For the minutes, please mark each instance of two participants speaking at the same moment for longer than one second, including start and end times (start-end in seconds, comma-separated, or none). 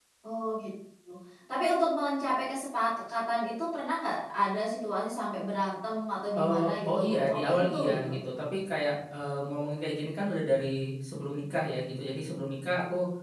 6.4-8.1